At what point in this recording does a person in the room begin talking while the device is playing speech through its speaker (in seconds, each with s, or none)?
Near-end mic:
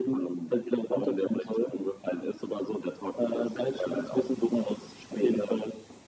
none